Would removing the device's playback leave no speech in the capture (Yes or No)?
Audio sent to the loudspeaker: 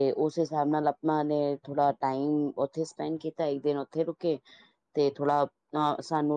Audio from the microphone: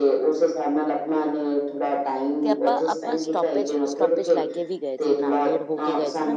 No